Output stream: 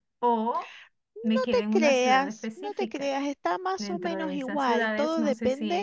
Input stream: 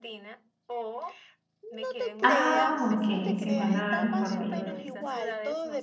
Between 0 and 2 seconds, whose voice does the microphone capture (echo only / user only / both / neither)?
echo only